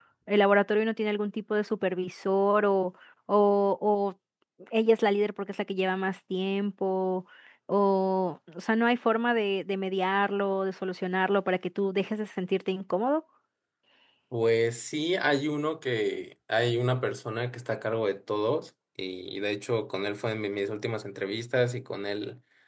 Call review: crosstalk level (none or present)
none